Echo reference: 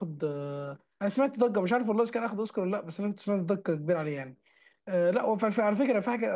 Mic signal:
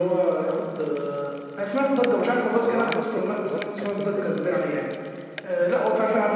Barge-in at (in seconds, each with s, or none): 2.5 s